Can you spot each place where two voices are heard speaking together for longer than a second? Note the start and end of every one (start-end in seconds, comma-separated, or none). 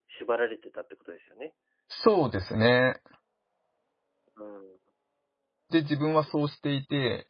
none